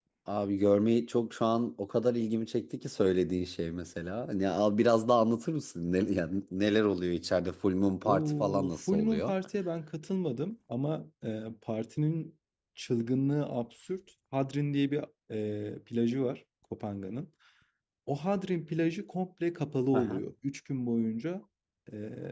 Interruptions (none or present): present